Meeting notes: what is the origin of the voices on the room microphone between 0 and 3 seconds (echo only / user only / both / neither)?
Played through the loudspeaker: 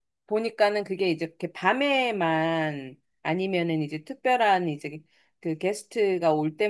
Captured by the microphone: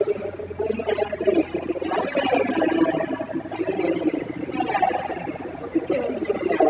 echo only